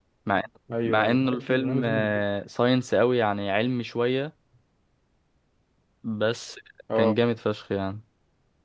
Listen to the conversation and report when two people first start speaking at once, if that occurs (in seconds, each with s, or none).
0.8 s